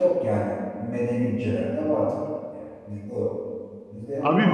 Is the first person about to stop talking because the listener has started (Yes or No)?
Yes